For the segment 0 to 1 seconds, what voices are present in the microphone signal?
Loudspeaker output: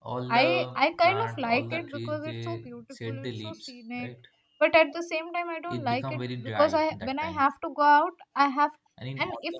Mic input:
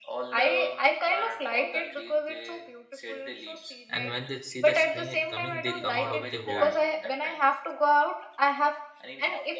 echo only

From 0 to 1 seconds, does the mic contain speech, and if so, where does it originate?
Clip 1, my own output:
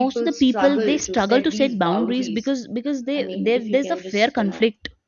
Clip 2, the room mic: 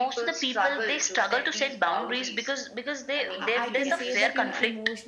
echo only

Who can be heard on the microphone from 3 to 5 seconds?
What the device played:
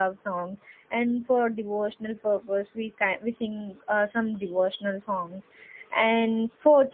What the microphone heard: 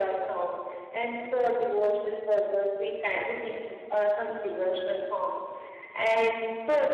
both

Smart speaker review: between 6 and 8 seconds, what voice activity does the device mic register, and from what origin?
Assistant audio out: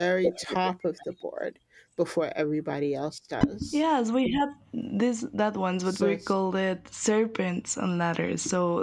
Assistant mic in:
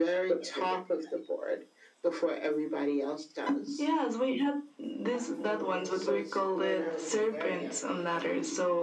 both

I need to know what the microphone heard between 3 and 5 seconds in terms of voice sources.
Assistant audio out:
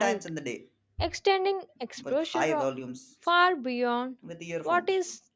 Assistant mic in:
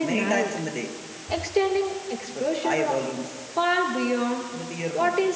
echo only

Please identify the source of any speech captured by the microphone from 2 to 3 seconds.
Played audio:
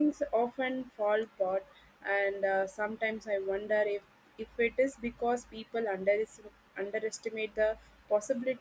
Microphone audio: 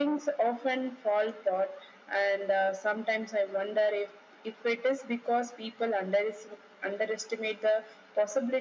echo only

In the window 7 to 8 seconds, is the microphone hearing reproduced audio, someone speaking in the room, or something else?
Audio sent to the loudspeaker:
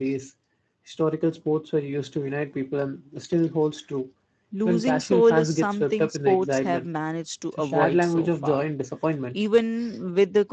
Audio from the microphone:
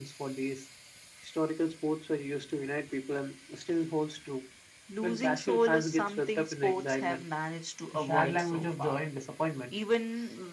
echo only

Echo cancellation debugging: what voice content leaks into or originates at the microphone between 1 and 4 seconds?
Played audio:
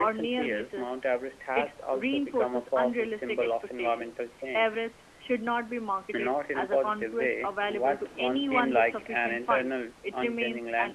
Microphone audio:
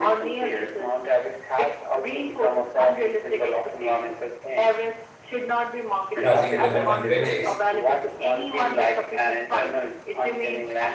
echo only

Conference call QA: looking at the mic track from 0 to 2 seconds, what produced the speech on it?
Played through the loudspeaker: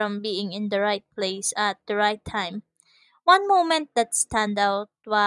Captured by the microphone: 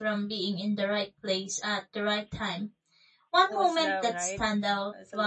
echo only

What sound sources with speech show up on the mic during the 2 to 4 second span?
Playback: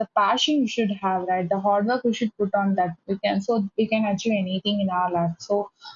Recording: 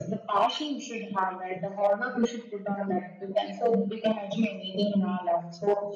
echo only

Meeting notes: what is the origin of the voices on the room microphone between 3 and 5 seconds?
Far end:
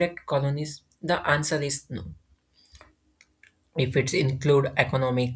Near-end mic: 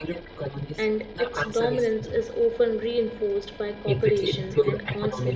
both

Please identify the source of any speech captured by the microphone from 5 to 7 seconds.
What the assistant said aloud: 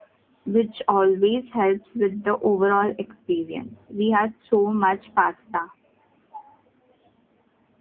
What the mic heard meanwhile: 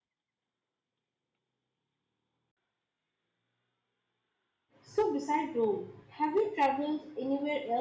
user only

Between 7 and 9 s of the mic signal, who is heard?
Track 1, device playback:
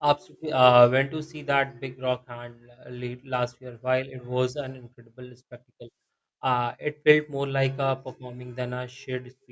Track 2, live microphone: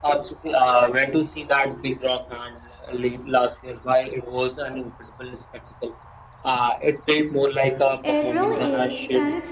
both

